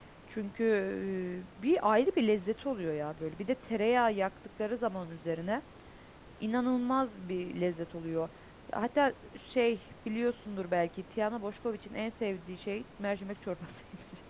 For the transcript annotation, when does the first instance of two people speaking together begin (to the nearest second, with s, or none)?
none